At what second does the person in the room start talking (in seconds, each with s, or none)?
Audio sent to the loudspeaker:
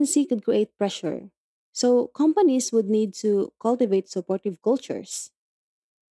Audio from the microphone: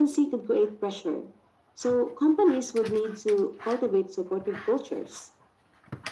none